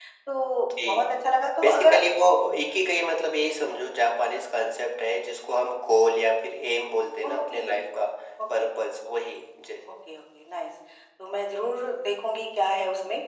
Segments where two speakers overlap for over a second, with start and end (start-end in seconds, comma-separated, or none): none